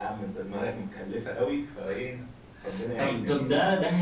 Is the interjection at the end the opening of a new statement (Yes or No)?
Yes